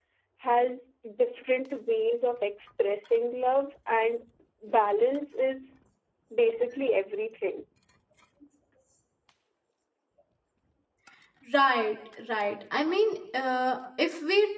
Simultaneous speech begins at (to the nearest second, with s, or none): none